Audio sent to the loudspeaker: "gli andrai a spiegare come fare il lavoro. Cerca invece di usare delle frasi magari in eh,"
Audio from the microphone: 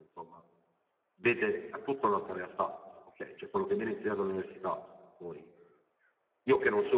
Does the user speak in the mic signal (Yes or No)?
Yes